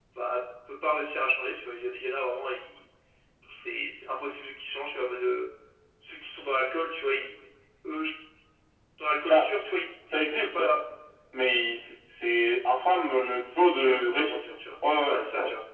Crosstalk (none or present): present